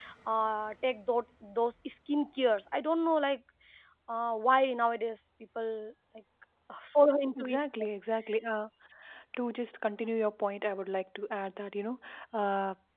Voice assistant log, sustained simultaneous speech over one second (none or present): none